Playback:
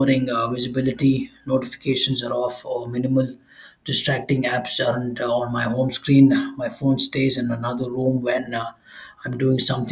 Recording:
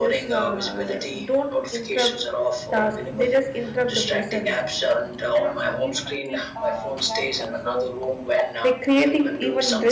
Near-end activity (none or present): present